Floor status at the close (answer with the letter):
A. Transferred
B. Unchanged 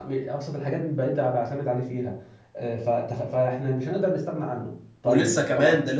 A